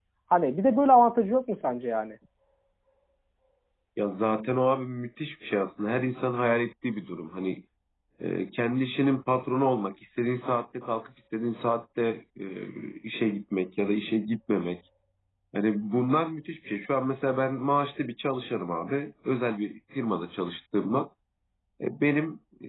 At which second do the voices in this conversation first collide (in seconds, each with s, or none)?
none